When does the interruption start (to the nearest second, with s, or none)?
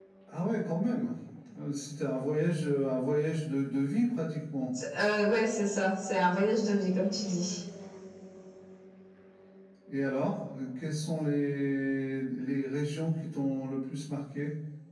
none